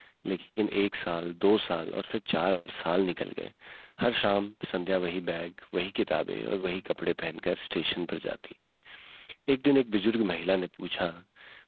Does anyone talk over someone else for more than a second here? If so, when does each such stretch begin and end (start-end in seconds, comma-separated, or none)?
none